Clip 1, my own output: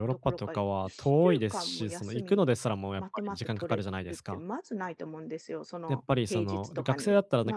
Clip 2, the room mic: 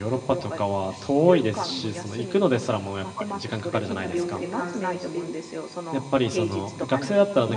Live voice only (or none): 変な病気で感染して、